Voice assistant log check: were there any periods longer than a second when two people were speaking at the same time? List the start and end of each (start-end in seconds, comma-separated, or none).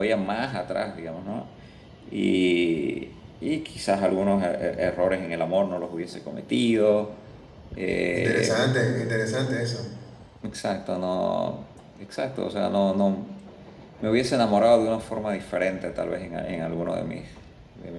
none